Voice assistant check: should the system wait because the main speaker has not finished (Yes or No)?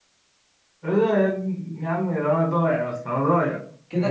No